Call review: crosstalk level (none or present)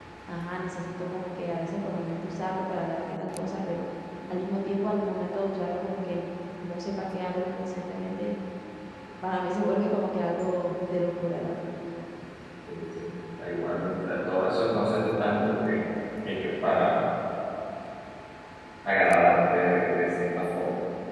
none